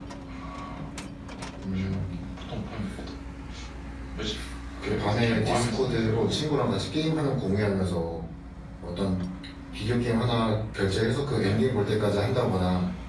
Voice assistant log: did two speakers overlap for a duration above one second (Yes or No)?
Yes